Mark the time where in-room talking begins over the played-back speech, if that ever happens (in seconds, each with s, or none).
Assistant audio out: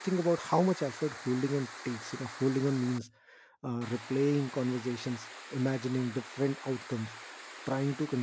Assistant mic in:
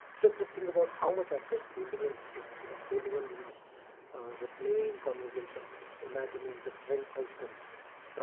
none